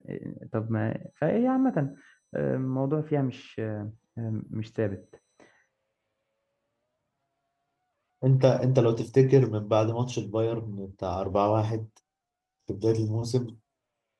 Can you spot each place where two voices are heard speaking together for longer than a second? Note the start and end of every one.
none

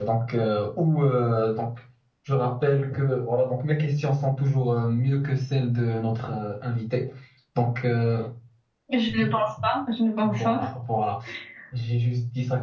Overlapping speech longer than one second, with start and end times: none

